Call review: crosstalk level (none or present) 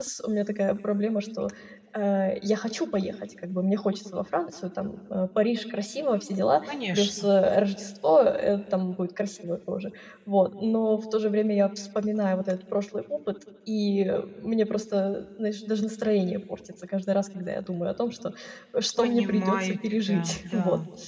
present